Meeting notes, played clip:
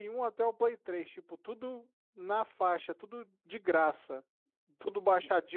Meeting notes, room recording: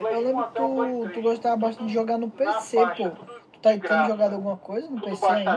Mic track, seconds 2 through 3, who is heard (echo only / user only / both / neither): both